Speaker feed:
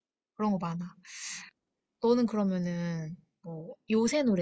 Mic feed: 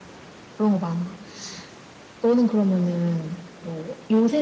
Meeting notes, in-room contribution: none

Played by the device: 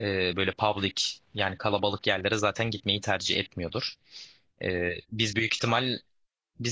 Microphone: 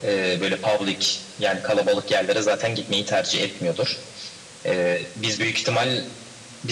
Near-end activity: none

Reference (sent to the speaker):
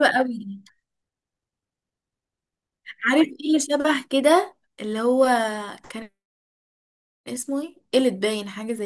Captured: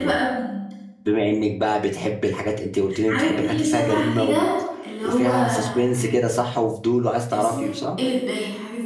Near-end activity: present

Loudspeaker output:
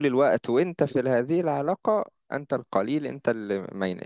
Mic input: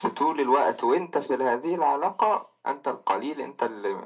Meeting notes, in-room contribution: none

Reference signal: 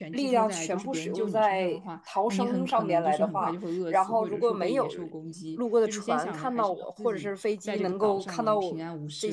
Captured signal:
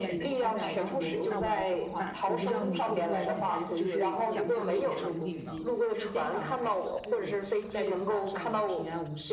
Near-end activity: present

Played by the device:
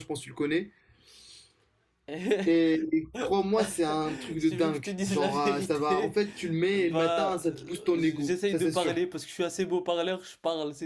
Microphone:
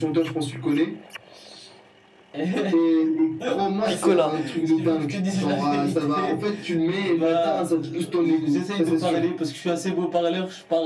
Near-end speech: present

